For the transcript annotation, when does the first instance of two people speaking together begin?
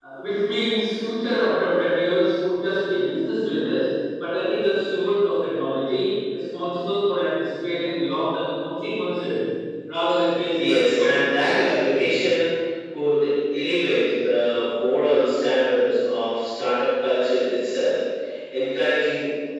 10.6 s

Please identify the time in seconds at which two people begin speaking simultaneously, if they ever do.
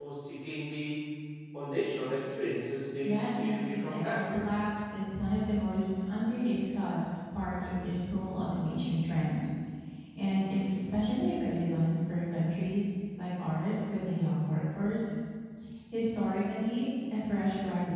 3.0 s

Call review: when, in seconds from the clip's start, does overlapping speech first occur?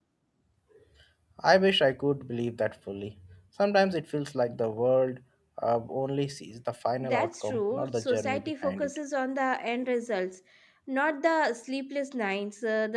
7.0 s

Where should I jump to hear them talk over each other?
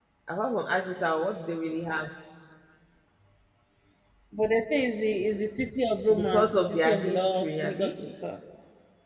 6.1 s

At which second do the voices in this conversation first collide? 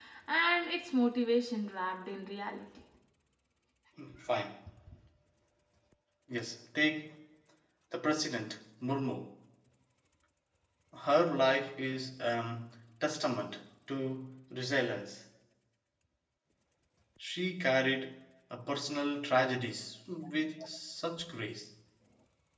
none

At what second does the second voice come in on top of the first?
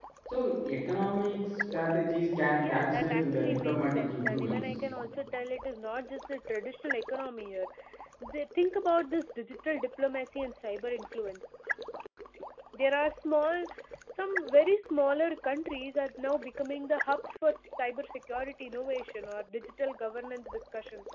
2.6 s

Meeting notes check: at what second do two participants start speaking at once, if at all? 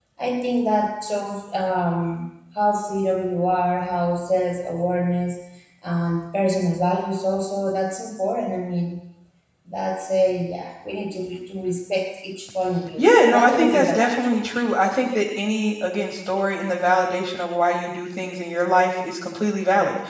13.0 s

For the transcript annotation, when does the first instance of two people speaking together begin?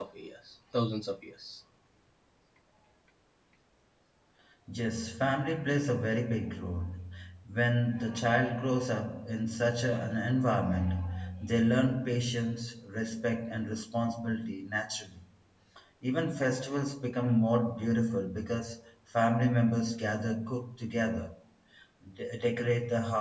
none

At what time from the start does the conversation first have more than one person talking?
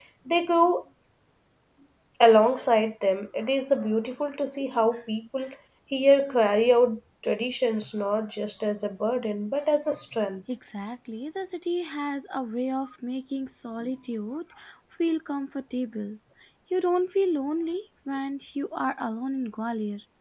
none

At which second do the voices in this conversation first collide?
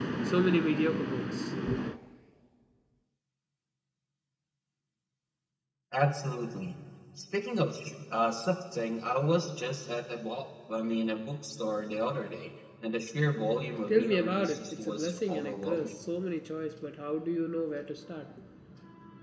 13.9 s

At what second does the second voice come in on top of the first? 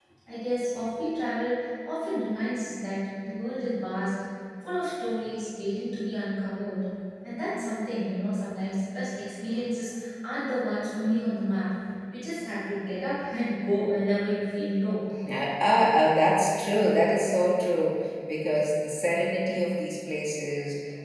none

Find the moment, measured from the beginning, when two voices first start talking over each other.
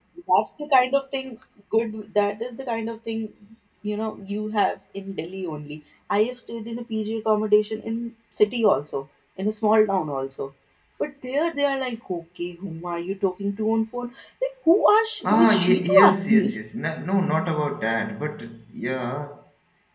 15.2 s

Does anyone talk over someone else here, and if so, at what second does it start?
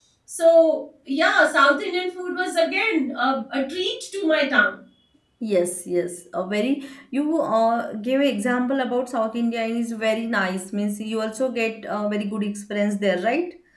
none

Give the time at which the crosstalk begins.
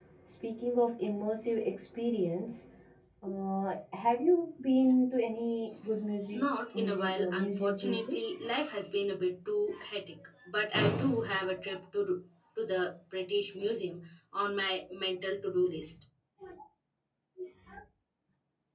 6.3 s

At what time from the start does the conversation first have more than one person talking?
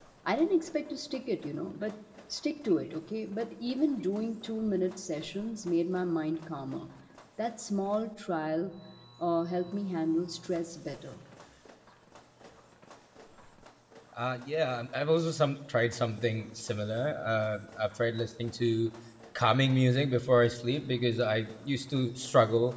none

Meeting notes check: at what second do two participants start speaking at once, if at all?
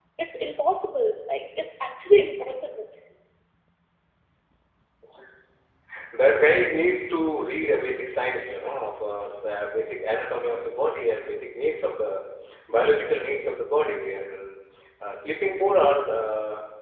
none

